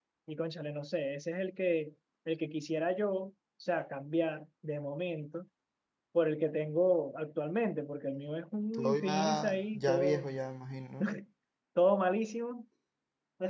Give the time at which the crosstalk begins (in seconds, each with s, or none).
8.7 s